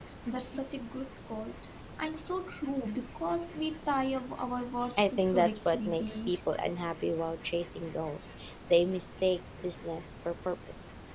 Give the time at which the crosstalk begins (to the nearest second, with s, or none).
5 s